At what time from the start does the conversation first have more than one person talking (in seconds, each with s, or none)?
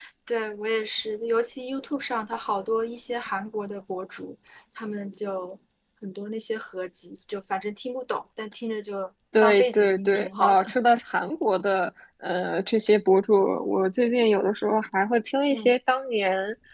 9.3 s